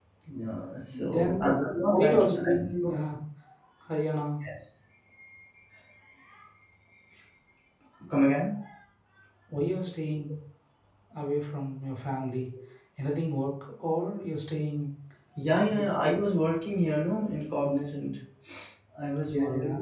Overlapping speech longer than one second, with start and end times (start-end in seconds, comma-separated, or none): 1.1-2.3